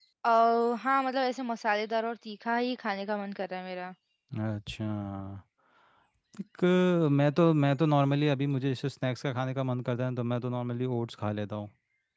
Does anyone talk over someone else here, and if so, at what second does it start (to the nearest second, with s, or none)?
none